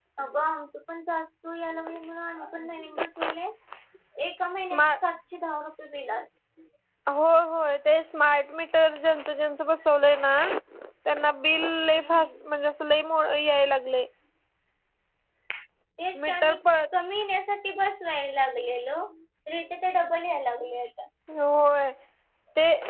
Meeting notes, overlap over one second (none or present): none